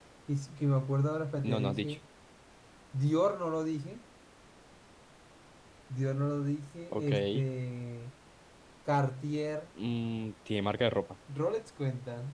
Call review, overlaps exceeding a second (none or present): none